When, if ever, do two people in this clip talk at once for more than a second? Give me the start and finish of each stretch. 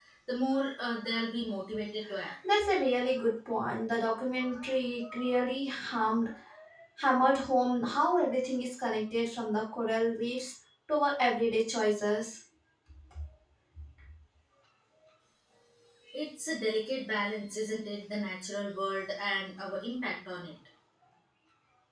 none

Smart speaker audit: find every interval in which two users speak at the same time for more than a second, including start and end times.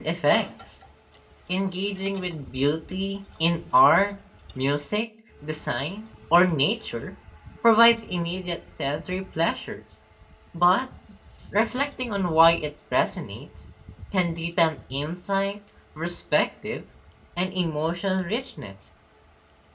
none

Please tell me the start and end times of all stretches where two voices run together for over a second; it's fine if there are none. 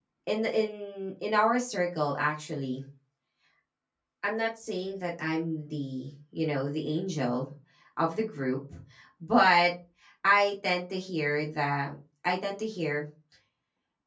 none

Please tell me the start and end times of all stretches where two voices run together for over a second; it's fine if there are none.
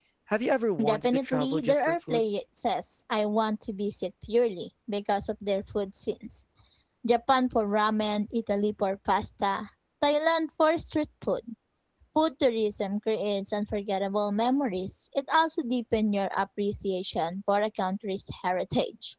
0.8-2.2

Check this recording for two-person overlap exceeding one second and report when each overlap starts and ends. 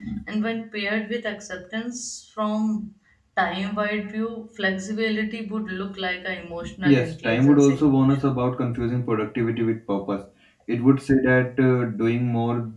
6.8-8.4

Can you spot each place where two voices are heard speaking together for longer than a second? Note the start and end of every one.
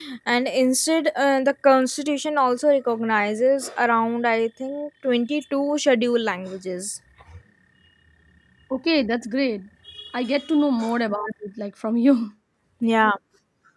none

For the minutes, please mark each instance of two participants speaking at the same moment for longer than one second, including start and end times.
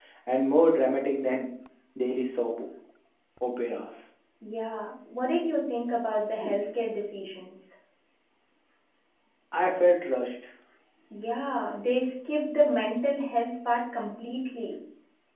none

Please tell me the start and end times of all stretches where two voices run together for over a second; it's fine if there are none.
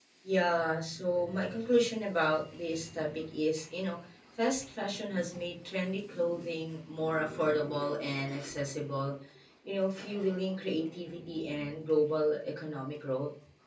none

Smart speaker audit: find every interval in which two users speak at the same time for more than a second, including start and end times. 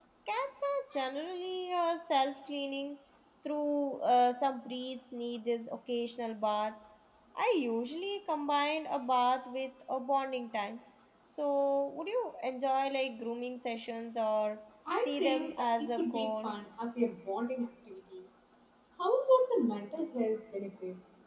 15.0-16.5

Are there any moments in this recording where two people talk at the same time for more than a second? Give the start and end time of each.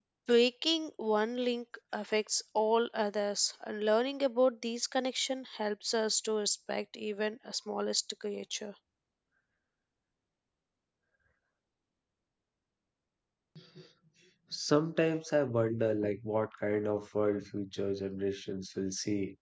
none

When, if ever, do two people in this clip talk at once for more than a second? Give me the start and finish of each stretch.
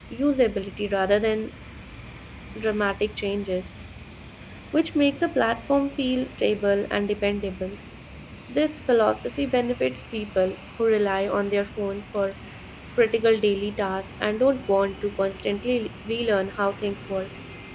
none

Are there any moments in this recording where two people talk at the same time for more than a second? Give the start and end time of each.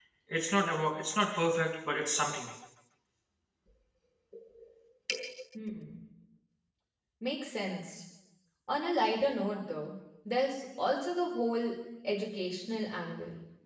none

